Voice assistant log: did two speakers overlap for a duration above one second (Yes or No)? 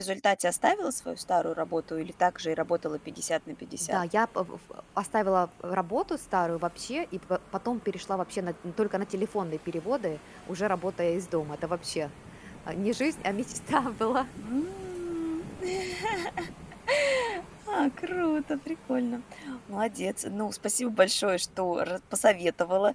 No